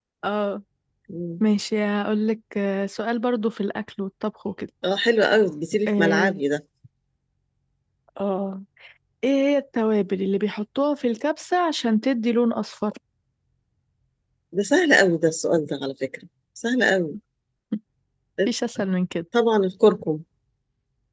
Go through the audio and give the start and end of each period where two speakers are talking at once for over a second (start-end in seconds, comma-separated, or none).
none